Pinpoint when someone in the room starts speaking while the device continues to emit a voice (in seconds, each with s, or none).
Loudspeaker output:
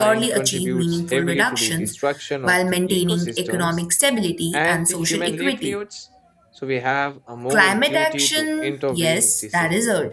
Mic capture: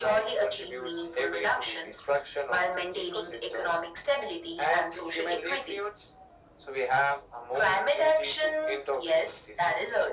none